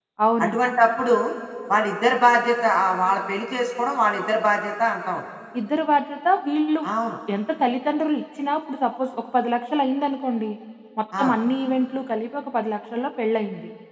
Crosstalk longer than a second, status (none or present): none